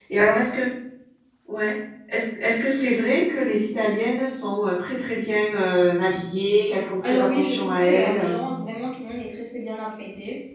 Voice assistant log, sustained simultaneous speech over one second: present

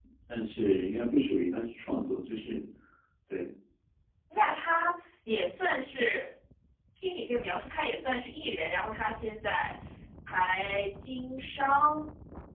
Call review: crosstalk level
none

